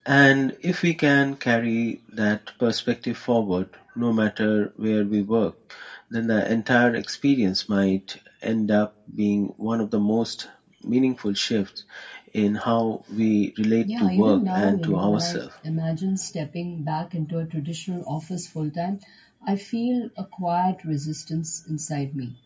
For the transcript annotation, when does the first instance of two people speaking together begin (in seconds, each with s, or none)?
13.8 s